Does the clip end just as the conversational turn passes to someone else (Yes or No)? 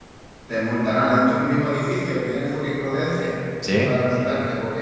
No